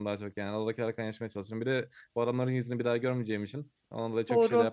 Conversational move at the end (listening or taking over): taking over